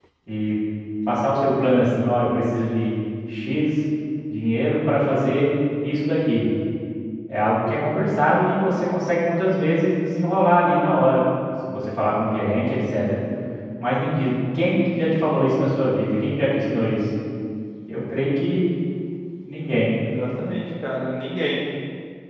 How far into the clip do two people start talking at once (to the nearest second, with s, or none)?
none